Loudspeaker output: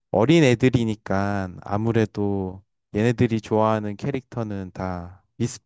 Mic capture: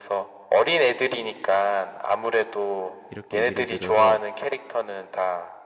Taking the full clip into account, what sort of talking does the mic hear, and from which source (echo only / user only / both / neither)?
both